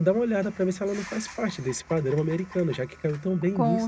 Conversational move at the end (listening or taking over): taking over